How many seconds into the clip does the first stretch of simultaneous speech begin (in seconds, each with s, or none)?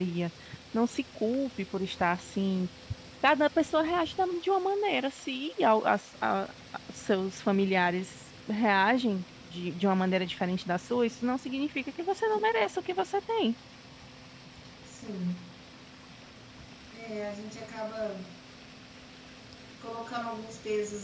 none